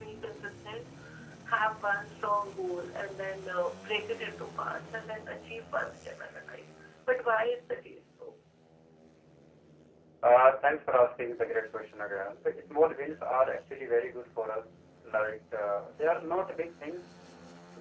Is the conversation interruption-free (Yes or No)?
Yes